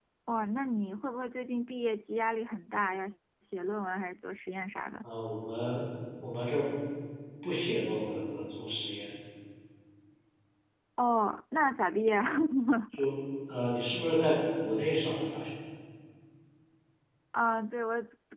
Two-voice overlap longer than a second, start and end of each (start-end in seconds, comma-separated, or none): none